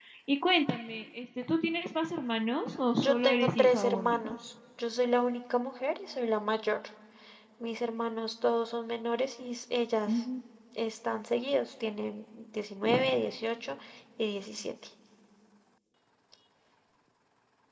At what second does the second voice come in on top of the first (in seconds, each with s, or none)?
2.9 s